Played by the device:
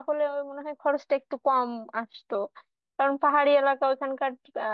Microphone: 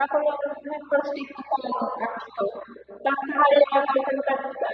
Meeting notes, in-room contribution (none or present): none